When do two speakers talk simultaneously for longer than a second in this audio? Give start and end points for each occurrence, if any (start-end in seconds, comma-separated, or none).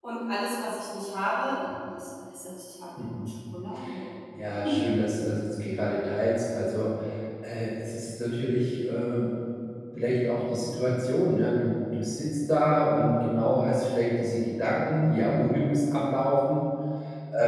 none